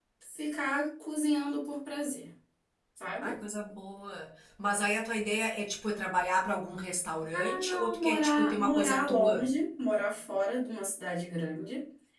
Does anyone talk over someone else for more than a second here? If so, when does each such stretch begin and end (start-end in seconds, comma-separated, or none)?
7.3-9.4